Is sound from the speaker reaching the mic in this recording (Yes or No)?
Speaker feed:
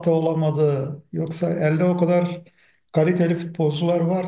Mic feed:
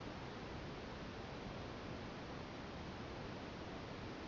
No